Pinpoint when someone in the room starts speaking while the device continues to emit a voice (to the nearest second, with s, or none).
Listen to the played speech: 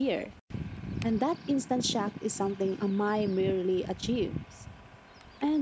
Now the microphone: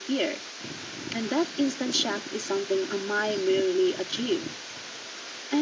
none